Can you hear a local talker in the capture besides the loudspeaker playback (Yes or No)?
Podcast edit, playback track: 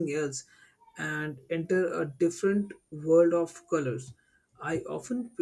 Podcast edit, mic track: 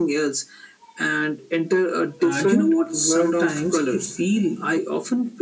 Yes